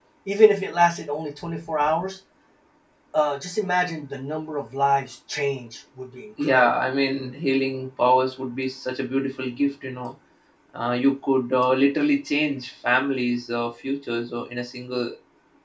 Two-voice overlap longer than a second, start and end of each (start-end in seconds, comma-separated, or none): none